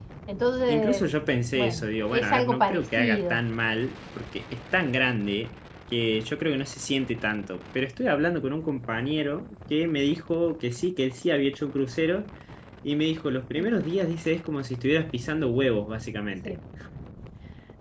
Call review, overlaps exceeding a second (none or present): present